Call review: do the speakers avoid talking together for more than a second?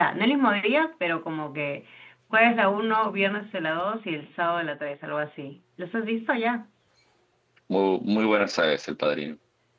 Yes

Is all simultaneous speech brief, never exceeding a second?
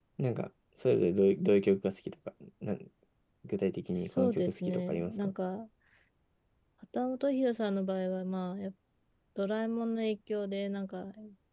No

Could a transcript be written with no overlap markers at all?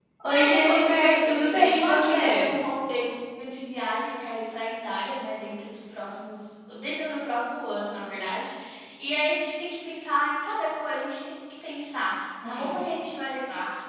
No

